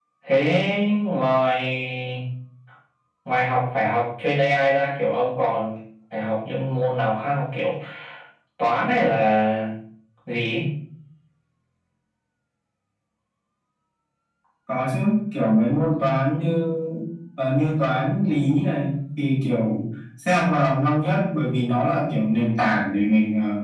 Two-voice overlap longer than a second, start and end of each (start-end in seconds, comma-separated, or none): none